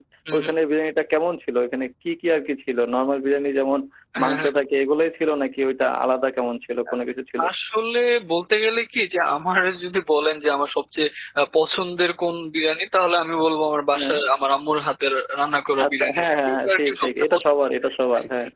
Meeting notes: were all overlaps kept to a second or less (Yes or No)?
No